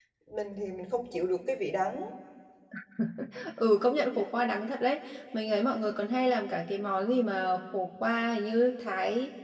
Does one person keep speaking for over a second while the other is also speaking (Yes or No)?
No